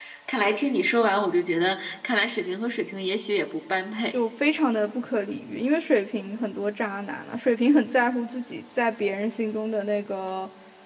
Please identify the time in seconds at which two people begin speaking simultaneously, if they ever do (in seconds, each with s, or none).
none